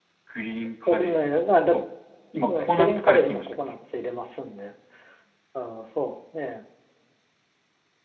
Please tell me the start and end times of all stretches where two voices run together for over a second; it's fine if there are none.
2.4-3.8

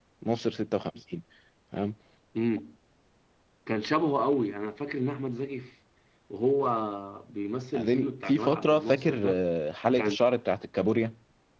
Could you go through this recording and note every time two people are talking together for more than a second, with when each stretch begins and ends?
7.7-9.4

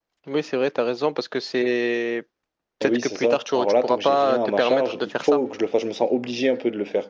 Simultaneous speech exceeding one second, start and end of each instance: 2.8-5.4

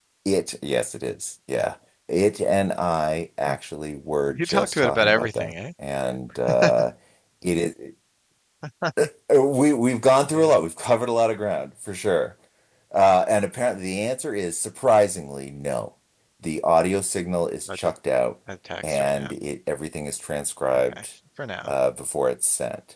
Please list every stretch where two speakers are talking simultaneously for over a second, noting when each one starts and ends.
4.3-5.5

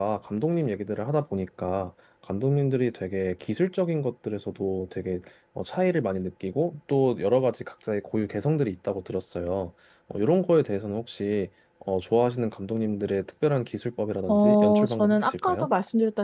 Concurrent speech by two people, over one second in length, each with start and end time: 14.3-15.7

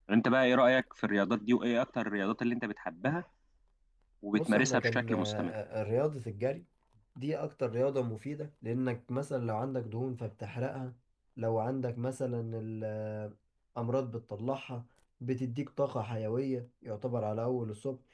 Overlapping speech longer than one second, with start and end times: 4.3-5.6

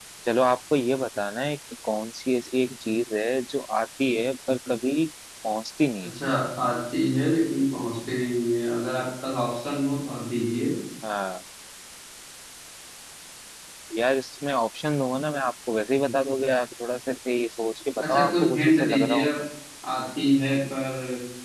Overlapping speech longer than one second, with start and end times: 18.0-19.2

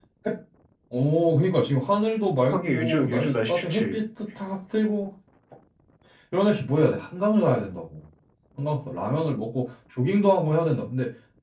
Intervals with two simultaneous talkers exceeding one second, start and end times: 2.5-4.0

